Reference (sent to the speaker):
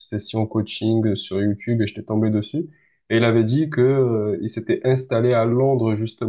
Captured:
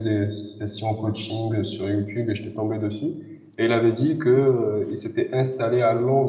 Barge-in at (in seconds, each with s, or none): none